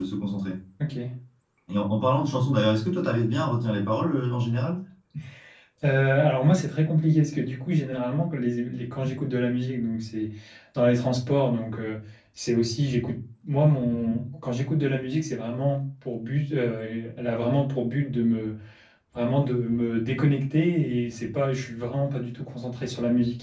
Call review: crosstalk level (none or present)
none